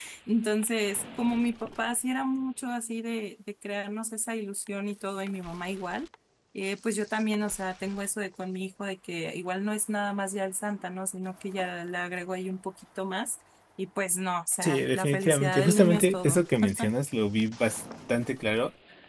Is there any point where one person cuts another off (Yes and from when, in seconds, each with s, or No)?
Yes, from 14.6 s